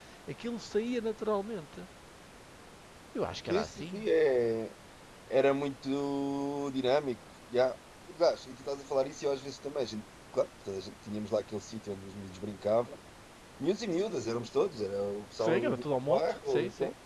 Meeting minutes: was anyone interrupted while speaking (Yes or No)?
Yes